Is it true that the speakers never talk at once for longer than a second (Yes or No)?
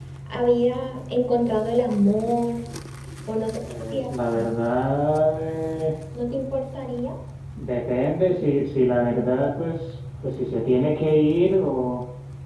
Yes